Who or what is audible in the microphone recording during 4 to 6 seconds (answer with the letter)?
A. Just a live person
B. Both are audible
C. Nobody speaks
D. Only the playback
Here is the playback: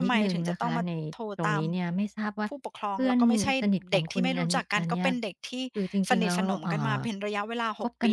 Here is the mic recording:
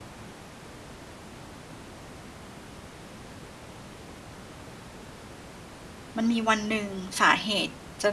C